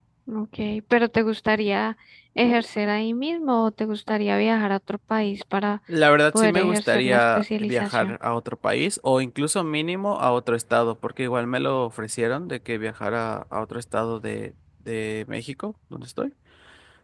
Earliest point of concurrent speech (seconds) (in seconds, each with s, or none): 6.3 s